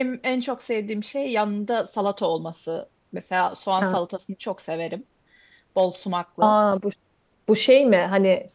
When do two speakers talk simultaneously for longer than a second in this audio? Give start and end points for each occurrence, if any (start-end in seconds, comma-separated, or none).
none